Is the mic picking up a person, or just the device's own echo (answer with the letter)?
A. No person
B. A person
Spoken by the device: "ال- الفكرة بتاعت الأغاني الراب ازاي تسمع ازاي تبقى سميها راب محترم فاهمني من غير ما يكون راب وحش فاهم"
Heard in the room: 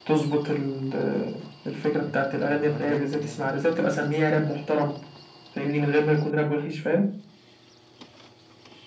B